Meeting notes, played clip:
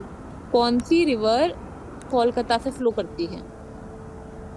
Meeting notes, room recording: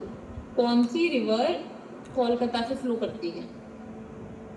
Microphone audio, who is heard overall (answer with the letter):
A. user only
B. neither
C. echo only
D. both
C